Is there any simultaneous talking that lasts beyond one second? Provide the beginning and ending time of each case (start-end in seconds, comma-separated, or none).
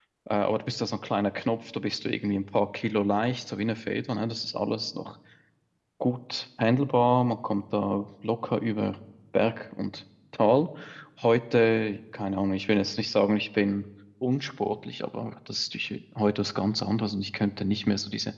none